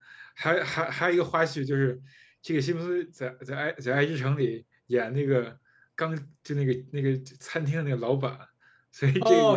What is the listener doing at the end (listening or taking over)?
taking over